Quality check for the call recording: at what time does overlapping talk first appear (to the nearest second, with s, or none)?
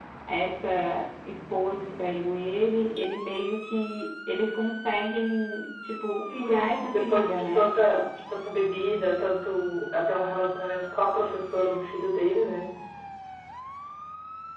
6 s